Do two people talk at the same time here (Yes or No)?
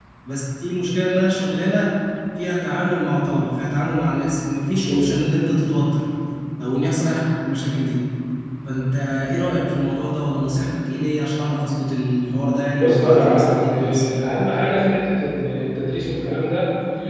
Yes